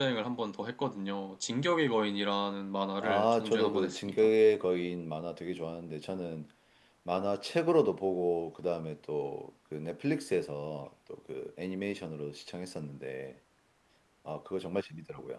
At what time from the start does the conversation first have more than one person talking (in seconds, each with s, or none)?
3.0 s